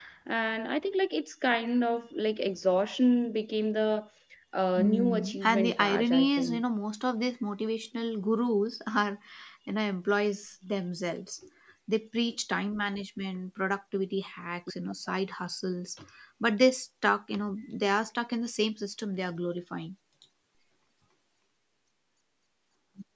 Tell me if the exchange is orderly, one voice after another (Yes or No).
No